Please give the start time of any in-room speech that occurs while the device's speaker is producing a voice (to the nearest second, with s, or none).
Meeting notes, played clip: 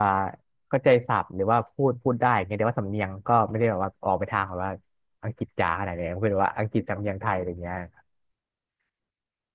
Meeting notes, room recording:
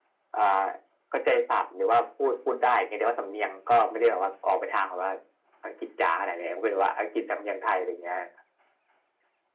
none